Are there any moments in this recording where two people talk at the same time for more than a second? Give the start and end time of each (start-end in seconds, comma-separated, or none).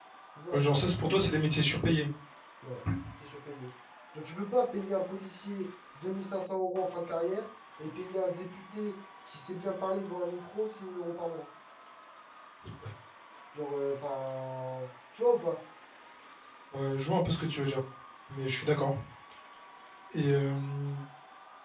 none